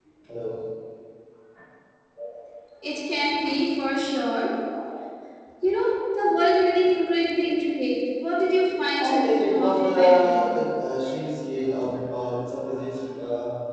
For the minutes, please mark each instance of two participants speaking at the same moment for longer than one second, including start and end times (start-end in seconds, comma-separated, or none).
9.0-10.5